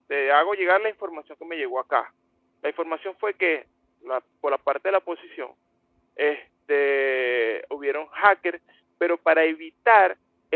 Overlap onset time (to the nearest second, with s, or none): none